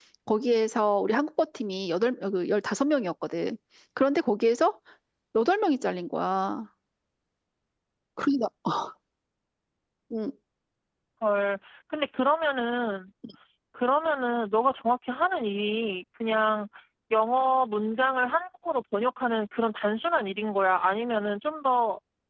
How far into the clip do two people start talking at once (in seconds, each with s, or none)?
none